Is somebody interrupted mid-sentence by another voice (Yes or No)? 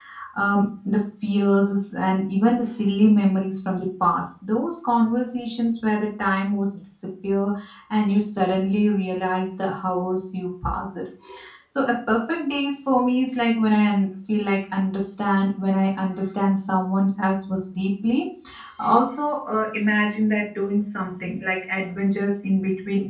No